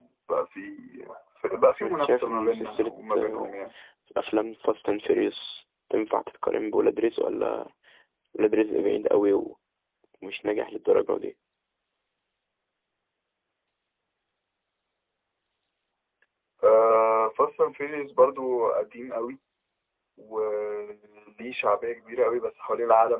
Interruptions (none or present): present